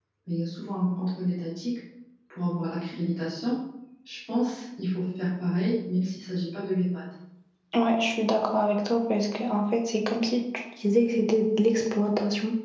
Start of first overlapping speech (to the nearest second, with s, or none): none